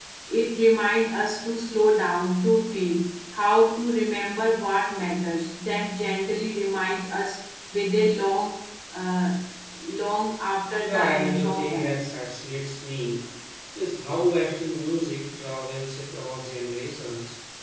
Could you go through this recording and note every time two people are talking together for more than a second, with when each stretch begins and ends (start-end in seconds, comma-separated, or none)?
10.8-12.1